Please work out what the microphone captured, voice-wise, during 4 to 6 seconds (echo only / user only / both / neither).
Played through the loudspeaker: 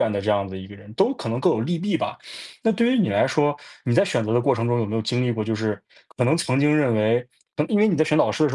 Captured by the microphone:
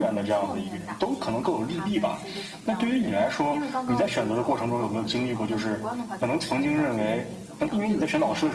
both